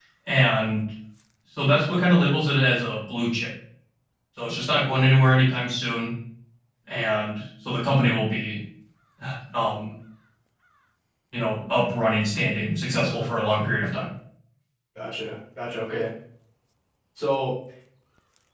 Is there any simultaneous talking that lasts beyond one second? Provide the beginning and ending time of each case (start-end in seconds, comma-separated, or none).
none